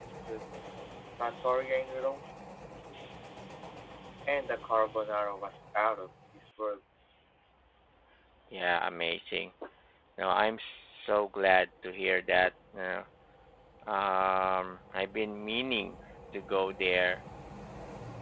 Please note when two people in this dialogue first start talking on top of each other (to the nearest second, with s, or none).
none